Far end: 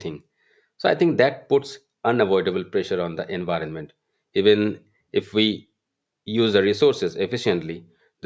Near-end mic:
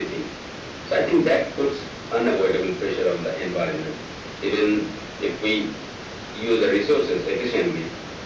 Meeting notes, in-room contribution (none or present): none